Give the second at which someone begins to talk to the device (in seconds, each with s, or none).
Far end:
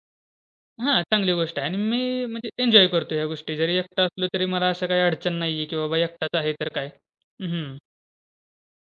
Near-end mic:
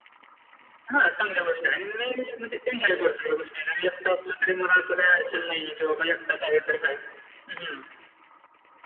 none